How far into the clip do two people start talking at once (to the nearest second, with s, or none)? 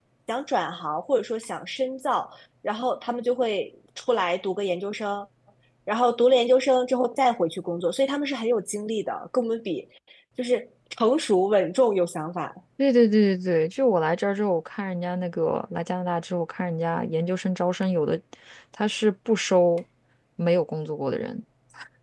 none